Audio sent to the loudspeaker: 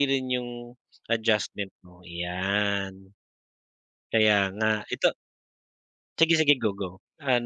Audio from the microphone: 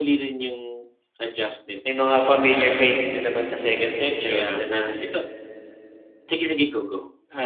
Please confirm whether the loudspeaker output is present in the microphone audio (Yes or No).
Yes